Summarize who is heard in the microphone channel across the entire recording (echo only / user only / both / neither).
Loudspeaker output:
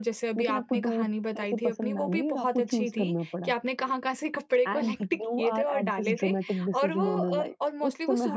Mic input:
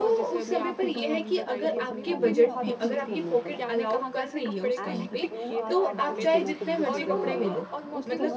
both